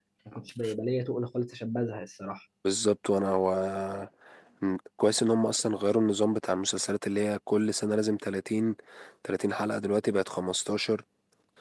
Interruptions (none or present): none